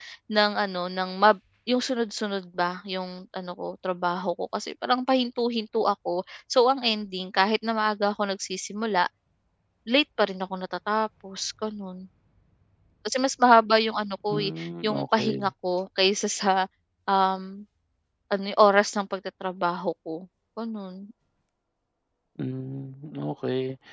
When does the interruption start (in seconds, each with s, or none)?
14.3 s